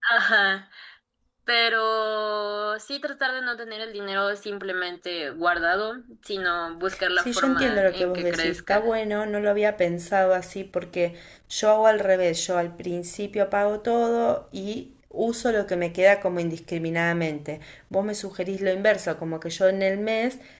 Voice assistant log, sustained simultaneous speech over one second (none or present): present